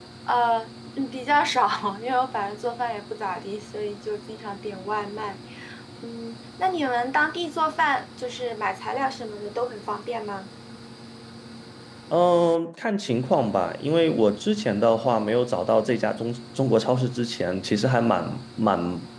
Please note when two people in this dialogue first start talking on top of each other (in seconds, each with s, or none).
none